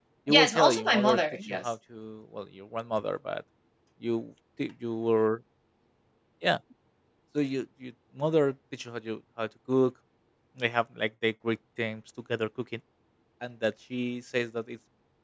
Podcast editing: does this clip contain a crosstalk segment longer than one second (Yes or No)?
Yes